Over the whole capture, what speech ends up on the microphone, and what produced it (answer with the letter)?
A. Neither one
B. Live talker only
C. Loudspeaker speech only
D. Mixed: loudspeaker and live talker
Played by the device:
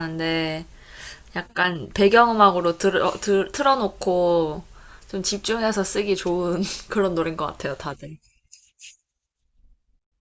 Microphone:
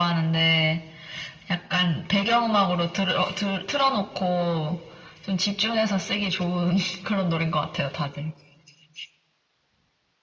C